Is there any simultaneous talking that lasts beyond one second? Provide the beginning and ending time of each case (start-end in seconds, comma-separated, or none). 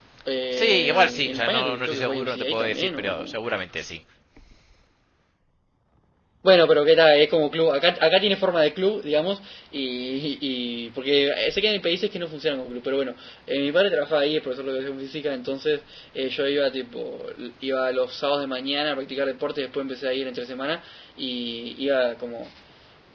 0.5-3.3